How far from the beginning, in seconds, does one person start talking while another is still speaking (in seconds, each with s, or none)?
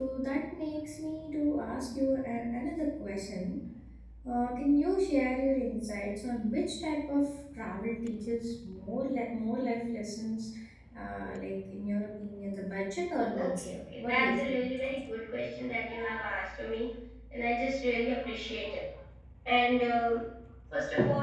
13.3 s